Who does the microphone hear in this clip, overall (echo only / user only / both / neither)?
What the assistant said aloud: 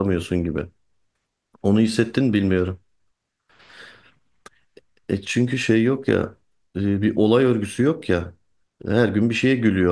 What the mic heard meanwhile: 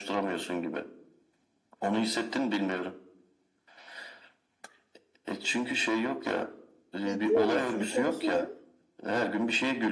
both